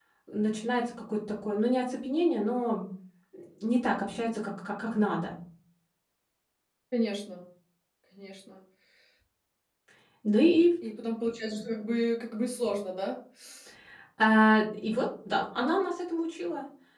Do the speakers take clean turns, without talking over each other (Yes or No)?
Yes